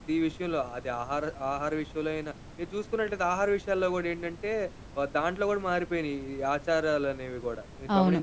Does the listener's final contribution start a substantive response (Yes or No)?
Yes